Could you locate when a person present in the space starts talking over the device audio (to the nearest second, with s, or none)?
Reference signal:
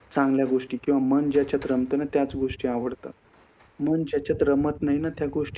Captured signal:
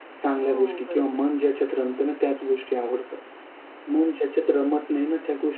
0 s